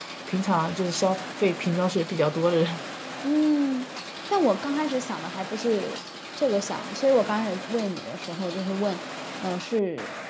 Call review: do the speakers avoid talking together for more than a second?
Yes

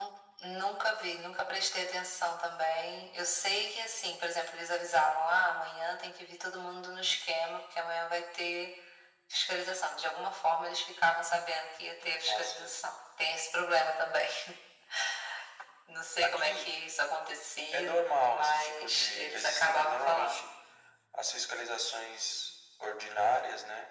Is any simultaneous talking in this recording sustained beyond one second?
Yes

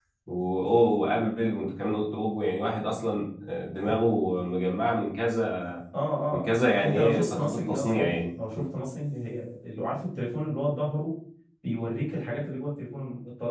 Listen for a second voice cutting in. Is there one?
Yes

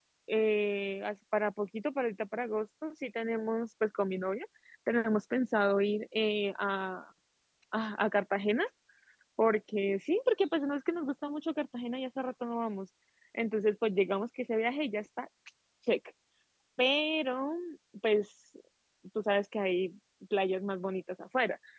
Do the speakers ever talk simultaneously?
No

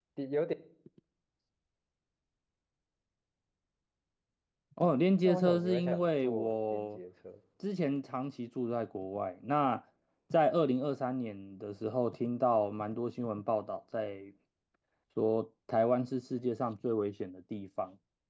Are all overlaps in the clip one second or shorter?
No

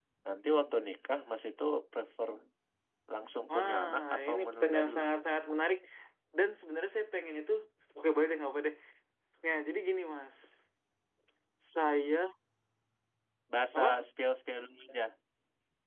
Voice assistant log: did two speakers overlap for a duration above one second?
Yes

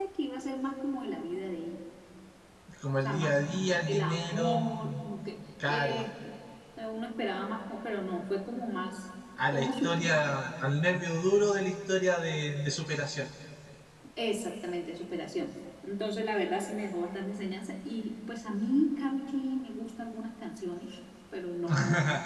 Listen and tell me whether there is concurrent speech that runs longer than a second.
Yes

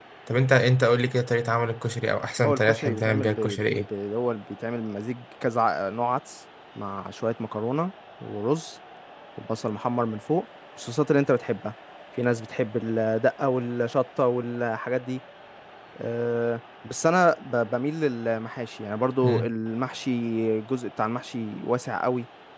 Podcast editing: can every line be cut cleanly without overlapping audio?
No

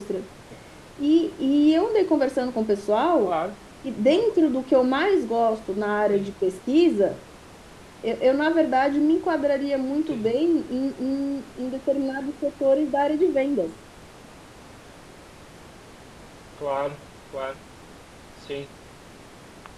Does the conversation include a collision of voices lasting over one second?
No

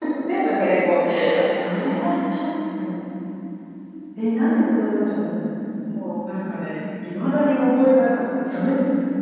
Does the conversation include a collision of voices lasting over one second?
No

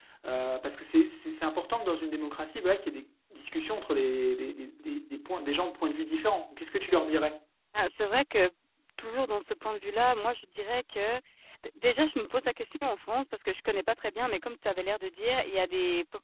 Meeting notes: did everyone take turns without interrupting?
Yes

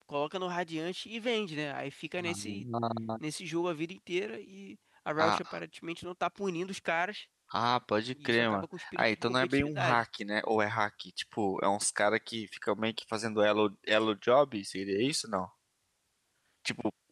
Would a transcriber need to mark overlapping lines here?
Yes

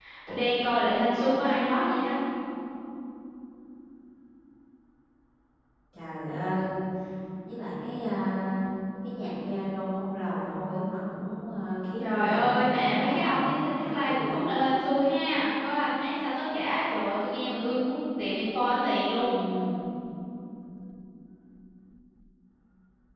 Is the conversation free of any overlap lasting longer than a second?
No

